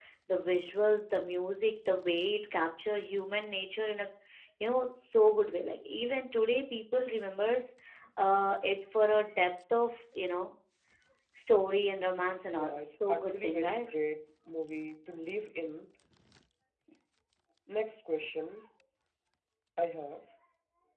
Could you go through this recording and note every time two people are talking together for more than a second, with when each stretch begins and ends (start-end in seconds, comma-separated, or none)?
12.5-13.9